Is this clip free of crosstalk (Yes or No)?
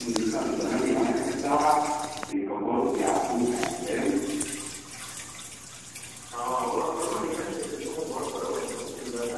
Yes